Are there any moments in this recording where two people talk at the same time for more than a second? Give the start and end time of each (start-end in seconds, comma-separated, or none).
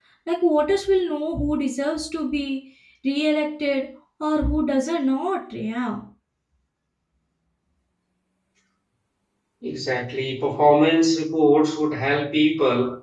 none